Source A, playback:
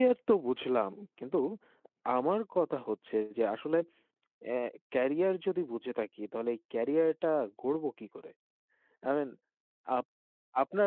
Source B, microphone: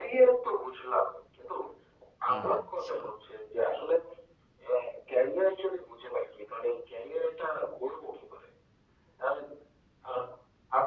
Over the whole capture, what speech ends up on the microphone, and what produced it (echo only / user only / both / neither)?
both